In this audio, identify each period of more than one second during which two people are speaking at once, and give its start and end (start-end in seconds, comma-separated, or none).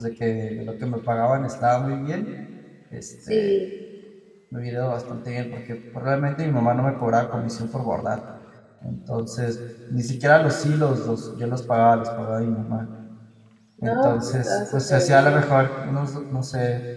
13.8-15.4